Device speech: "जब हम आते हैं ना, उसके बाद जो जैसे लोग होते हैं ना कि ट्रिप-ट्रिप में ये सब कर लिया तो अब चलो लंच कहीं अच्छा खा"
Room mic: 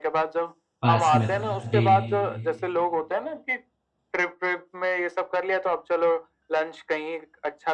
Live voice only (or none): पास में था जी